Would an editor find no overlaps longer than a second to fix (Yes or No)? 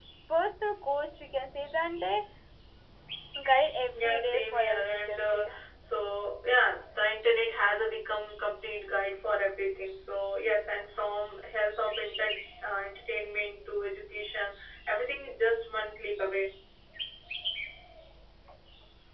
No